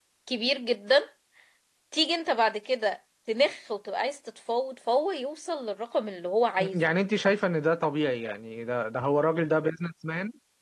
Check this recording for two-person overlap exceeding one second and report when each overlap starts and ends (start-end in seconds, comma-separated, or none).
none